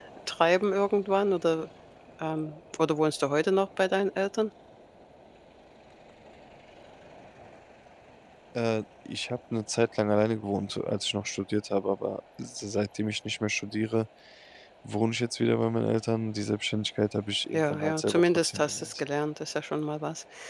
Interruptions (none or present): present